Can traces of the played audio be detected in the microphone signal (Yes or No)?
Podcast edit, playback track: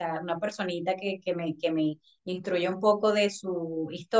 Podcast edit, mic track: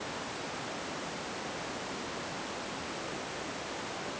No